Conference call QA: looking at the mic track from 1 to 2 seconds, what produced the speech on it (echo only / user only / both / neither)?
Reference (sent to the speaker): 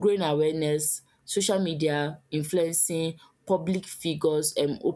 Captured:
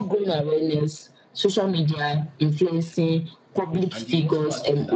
echo only